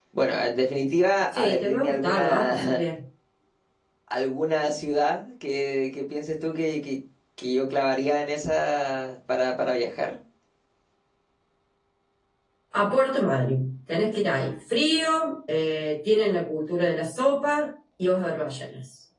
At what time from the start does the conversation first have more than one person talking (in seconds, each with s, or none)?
1.3 s